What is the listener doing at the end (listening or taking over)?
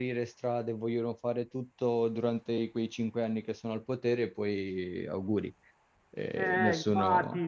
taking over